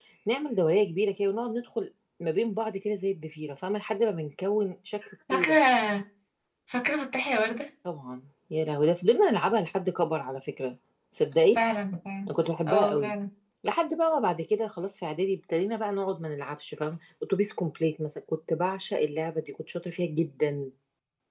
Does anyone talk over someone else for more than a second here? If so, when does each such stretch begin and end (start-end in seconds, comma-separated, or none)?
none